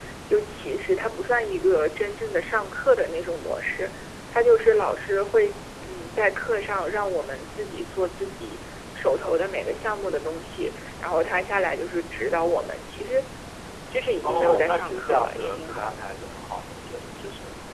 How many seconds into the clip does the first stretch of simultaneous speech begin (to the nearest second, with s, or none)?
14 s